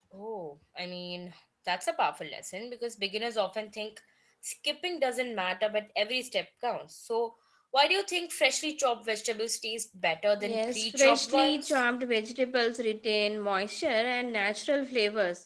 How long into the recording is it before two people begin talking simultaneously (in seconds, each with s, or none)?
10.4 s